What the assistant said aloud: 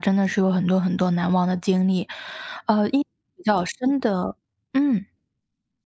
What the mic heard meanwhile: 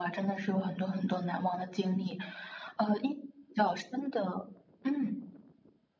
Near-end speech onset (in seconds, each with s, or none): none